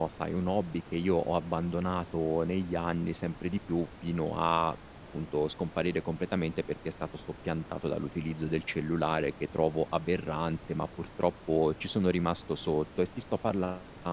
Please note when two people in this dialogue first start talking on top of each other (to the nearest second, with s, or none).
none